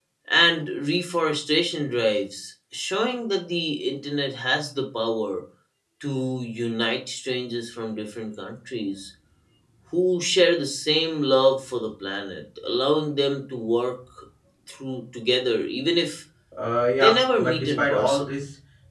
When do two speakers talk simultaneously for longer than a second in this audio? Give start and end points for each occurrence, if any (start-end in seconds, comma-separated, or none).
17.0-18.3